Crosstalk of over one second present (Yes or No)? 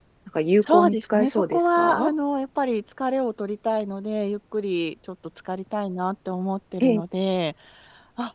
Yes